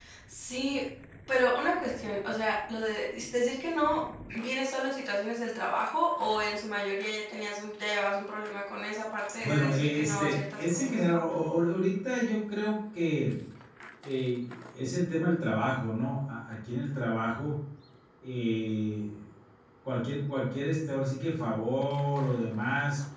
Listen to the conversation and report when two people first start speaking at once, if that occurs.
9 s

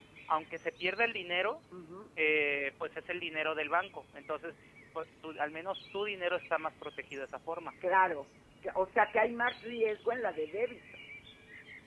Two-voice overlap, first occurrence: none

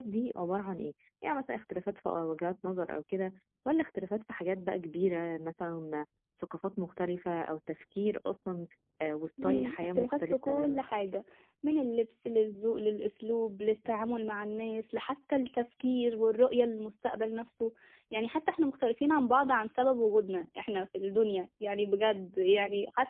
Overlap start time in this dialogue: 9 s

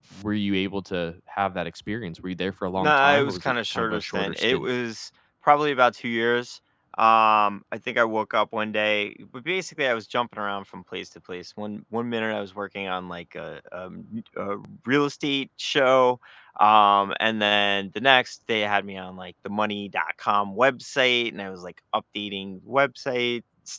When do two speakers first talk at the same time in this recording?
3 s

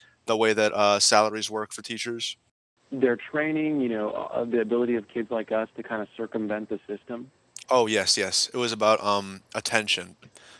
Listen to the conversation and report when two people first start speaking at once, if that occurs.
none

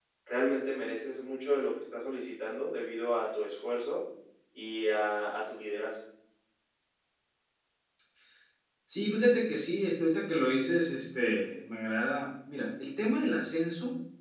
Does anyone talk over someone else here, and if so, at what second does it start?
none

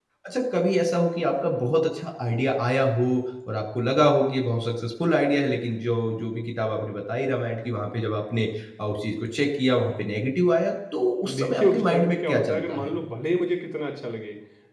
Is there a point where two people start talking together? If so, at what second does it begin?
11 s

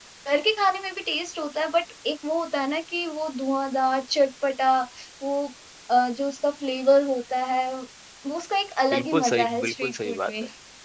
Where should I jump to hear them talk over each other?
9 s

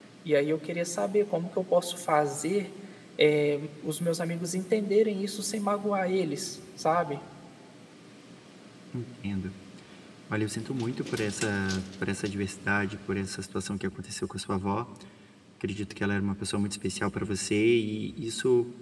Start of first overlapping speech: none

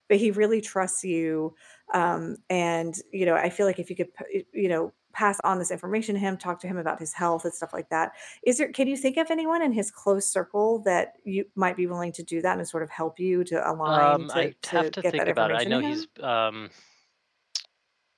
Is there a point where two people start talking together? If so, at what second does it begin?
14 s

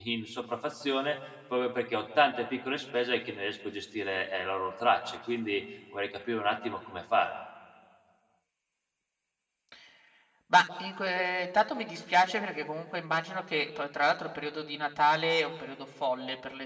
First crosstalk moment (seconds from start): none

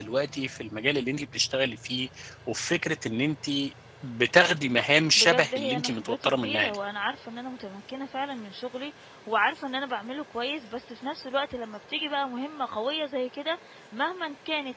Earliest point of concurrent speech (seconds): 5 s

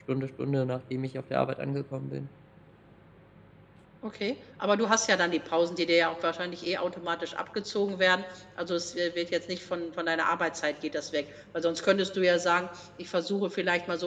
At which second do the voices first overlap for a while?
none

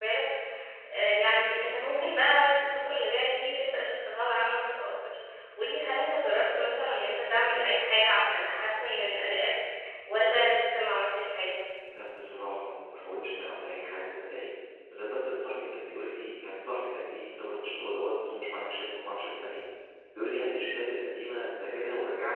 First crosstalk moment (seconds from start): none

